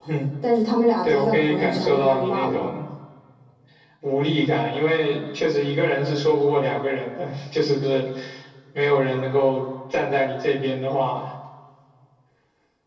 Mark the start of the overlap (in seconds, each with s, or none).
1.0 s